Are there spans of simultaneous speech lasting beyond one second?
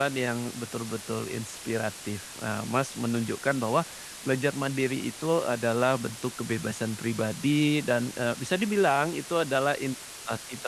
No

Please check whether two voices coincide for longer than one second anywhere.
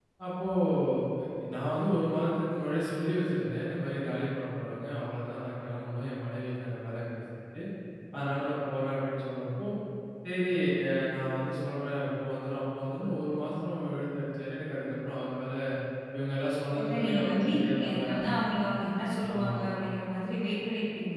Yes, from 16.8 s

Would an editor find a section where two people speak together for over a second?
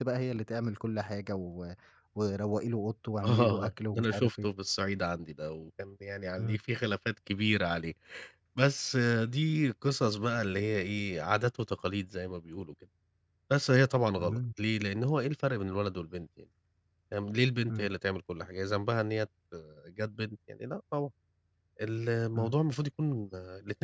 Yes, from 3.2 s

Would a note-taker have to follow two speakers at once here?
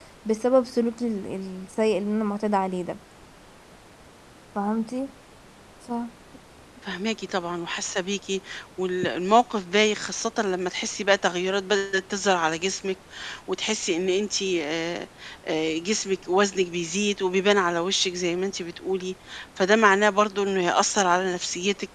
No

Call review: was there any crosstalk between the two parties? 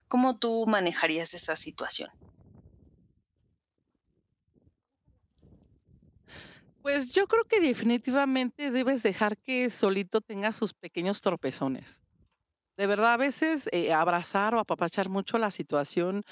No

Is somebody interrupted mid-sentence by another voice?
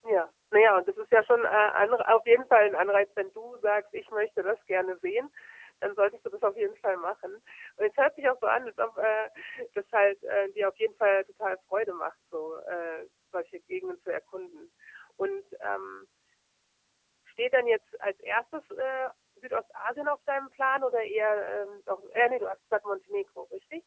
No

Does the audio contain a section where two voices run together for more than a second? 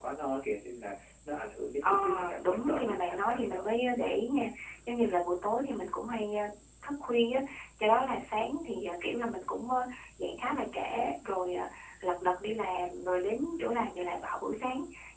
Yes, from 1.8 s

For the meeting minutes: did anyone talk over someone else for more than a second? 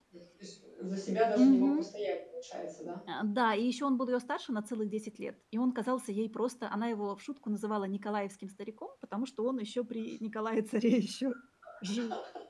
No

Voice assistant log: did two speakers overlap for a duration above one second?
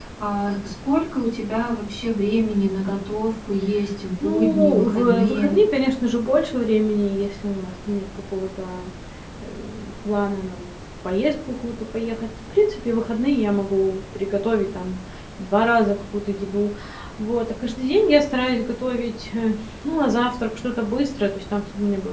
Yes, from 4.2 s

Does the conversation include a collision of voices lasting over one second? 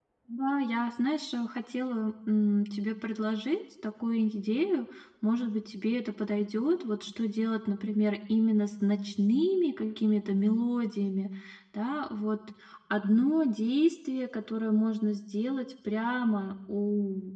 No

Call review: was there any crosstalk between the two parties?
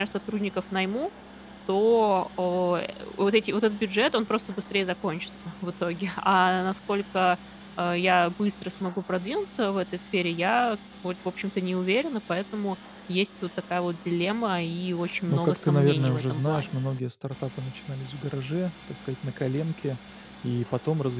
Yes, from 15.3 s

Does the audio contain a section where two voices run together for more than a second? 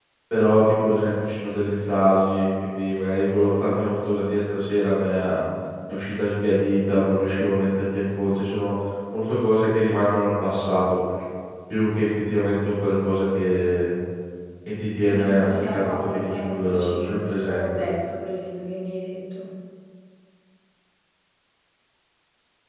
Yes, from 15.0 s

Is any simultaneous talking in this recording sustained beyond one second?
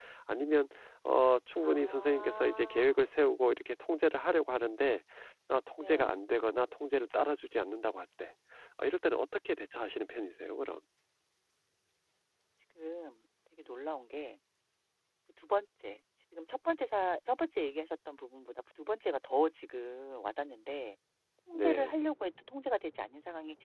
Yes, from 1.6 s

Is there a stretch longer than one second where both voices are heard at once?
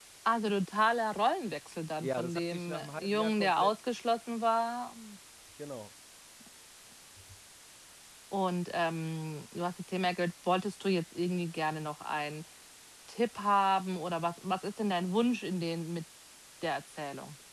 Yes, from 2.0 s

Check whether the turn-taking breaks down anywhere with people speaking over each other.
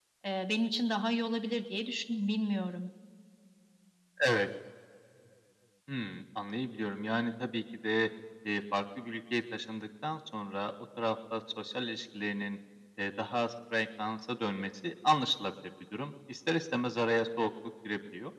No

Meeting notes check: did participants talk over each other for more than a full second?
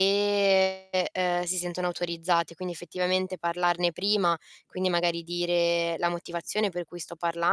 No

